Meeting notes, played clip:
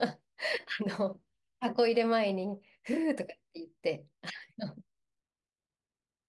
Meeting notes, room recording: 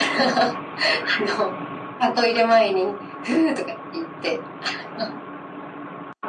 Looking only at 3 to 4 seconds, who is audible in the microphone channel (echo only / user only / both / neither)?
echo only